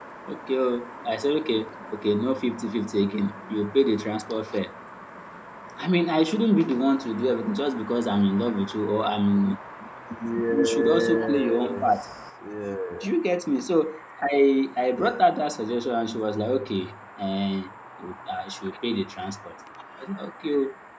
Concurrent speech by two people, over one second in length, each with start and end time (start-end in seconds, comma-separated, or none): 10.5-11.9